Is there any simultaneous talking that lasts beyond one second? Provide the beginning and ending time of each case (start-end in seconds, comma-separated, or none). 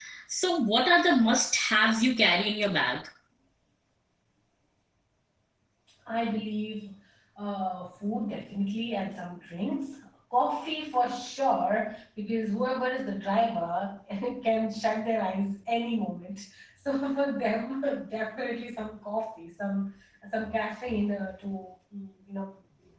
none